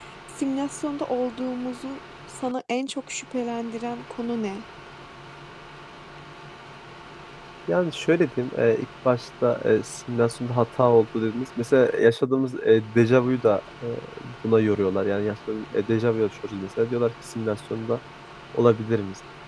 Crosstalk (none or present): none